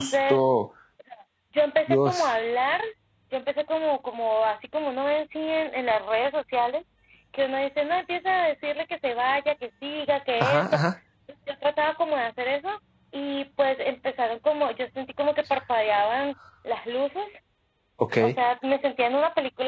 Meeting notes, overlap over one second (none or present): none